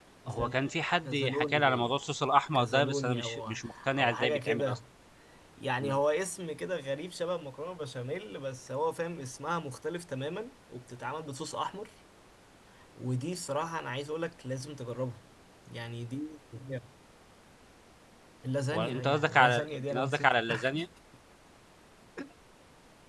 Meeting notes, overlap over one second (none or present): present